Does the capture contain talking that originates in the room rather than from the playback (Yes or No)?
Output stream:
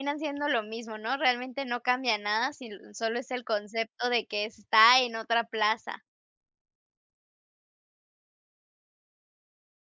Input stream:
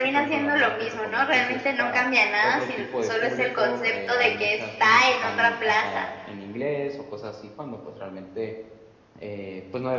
Yes